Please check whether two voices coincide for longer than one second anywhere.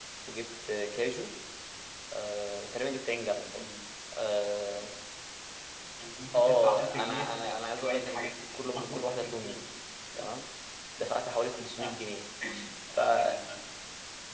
Yes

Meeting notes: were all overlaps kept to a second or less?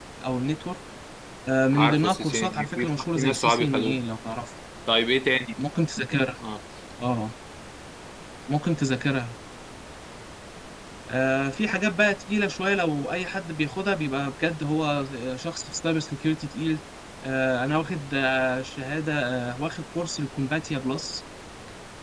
No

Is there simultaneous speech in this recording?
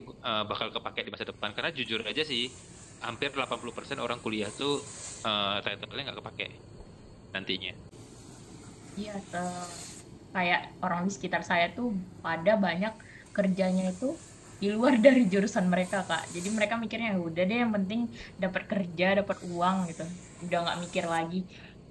No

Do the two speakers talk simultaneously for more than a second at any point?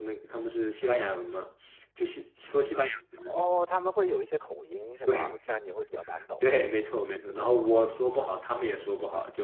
No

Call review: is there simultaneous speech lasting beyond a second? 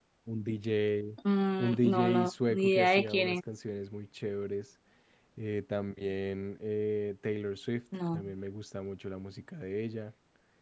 Yes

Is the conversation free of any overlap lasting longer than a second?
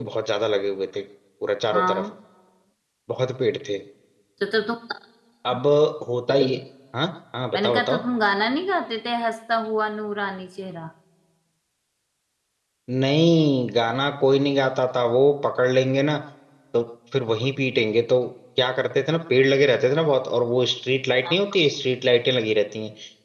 Yes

